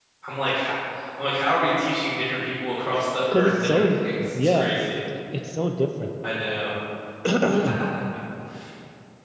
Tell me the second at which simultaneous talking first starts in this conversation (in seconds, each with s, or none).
3.3 s